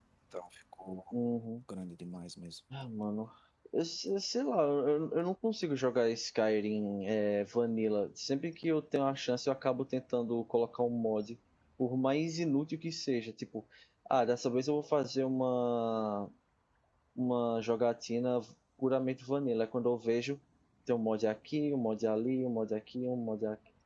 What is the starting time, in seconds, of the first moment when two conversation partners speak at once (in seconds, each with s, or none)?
none